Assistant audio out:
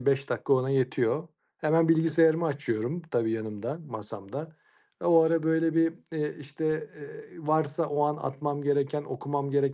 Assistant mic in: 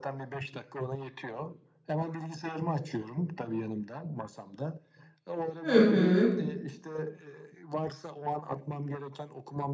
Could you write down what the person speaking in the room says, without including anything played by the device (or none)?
Hı hı.